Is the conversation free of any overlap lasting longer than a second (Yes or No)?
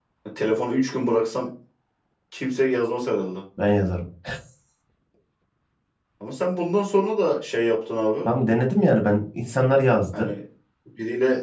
Yes